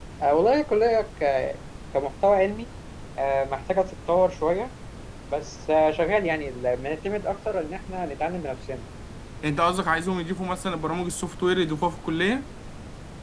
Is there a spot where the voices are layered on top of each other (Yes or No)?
No